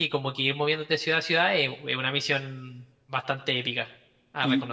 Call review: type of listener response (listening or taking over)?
taking over